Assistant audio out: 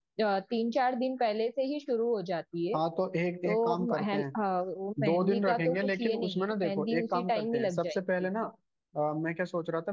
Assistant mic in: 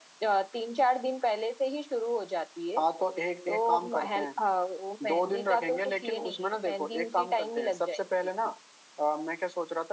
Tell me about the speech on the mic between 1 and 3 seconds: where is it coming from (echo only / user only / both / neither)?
echo only